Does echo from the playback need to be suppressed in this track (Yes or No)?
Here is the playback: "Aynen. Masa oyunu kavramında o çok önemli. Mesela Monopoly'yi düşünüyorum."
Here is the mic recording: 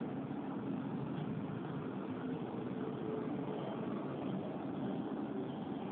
No